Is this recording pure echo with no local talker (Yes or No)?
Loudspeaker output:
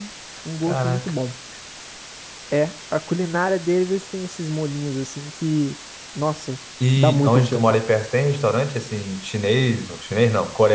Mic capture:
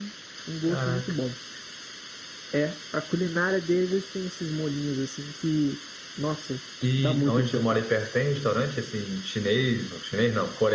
Yes